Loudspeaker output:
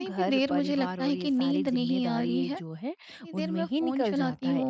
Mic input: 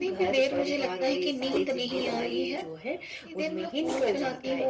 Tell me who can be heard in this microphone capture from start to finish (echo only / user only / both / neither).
echo only